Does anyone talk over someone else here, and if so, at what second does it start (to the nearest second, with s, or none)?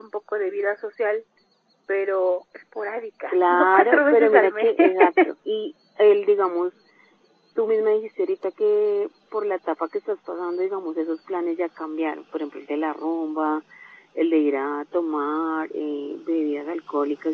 3 s